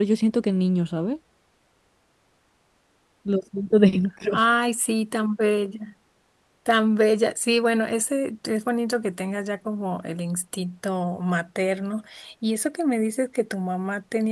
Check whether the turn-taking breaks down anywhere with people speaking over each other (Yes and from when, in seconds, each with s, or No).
No